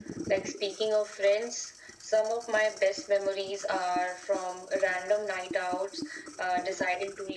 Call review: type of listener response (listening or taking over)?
listening